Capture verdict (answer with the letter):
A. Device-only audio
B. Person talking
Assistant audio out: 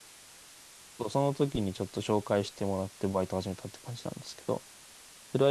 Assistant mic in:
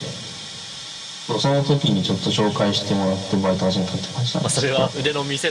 B